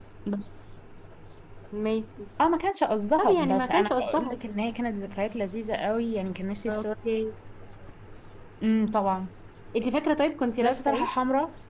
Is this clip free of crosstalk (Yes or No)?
No